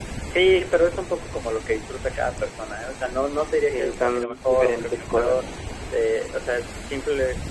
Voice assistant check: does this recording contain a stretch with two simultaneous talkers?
Yes, from 3.7 s

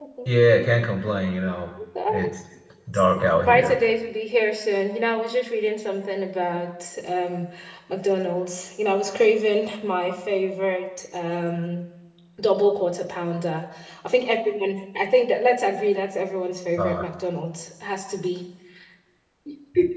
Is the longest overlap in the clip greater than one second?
No

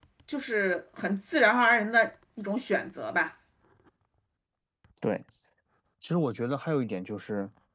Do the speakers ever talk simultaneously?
No

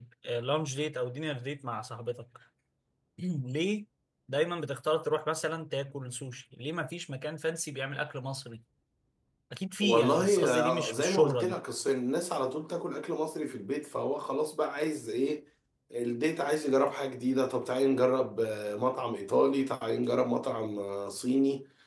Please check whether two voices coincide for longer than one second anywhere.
Yes, from 9.8 s

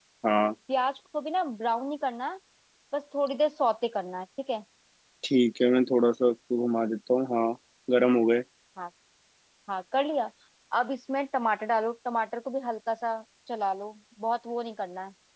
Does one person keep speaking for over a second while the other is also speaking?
No

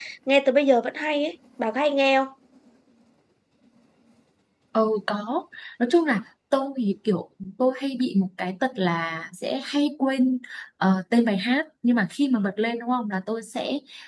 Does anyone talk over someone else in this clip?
No

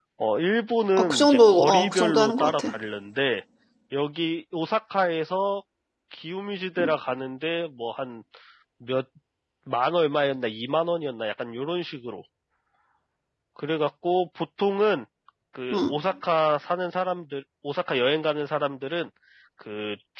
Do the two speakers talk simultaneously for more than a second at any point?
Yes, from 1.0 s

